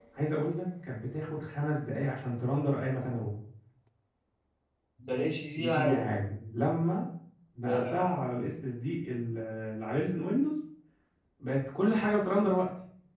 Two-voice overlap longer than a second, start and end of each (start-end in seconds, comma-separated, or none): none